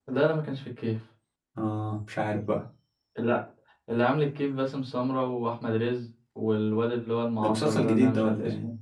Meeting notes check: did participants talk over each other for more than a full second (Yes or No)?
Yes